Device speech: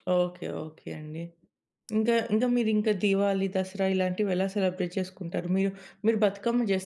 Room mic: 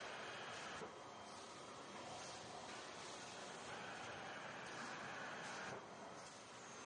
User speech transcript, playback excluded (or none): none